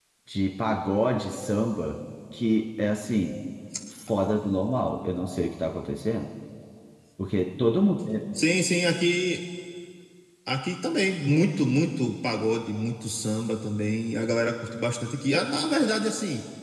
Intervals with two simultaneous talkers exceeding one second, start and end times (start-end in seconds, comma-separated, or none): none